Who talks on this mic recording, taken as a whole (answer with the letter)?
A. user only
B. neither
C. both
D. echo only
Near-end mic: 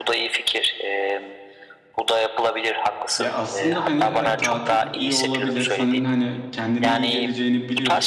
C